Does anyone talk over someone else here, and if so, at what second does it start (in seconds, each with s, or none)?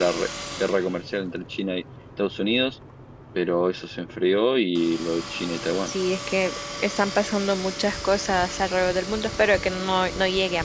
none